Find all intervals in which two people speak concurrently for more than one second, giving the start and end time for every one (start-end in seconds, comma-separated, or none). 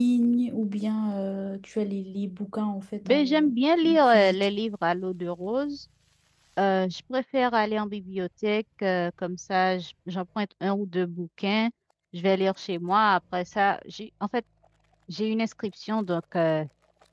3.0-4.5